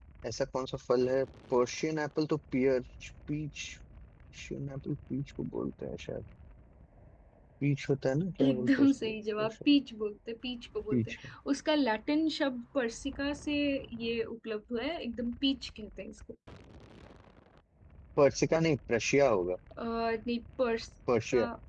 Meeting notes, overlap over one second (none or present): present